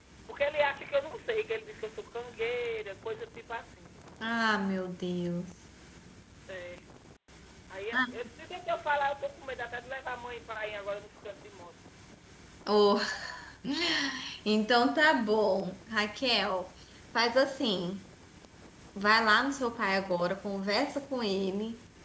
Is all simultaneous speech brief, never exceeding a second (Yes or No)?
Yes